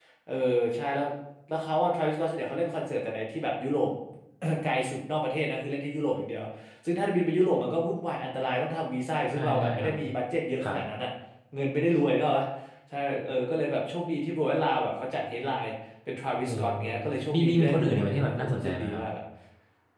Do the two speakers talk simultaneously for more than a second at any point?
Yes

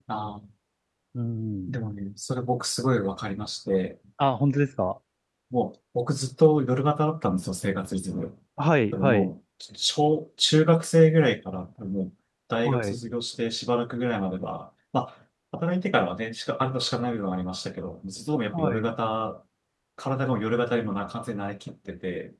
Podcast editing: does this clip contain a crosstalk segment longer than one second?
No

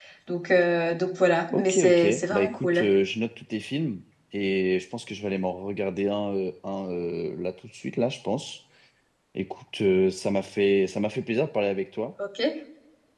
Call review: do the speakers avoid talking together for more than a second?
No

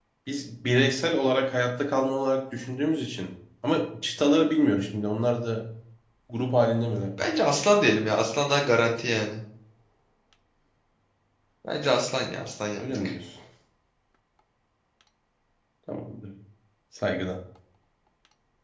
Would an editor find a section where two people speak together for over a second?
No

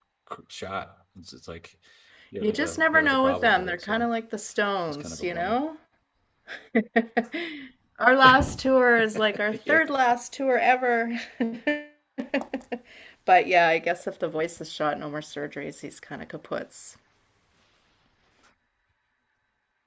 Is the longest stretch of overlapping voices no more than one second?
No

